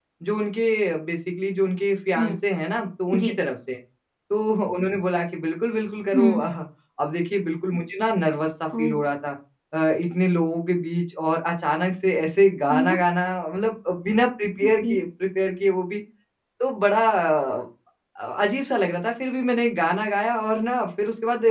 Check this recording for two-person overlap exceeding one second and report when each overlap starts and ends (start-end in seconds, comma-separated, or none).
none